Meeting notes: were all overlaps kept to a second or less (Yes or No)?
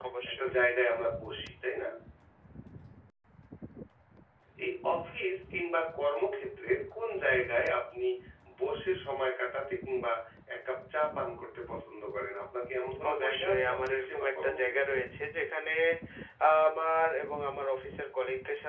No